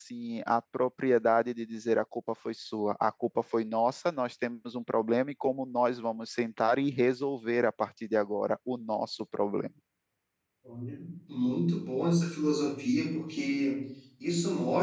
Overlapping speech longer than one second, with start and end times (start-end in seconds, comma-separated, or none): none